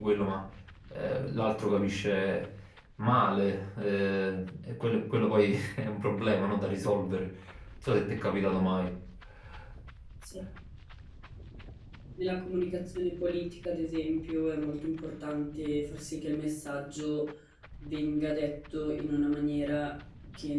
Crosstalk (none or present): none